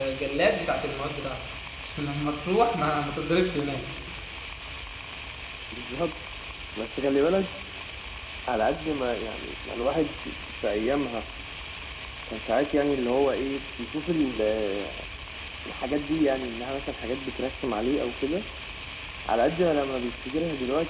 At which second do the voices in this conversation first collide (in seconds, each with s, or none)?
none